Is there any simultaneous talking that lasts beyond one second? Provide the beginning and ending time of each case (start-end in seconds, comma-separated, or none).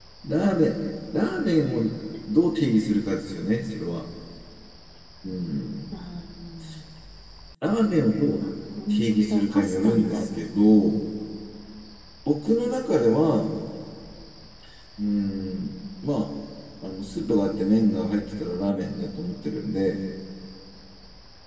8.9-10.2